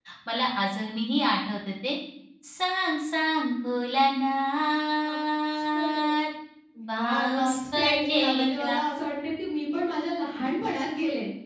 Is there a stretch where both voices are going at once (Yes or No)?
Yes